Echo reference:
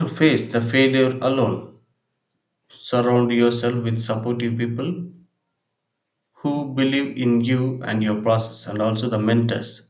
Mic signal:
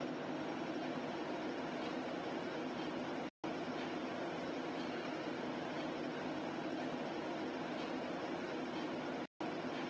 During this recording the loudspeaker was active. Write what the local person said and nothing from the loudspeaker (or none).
none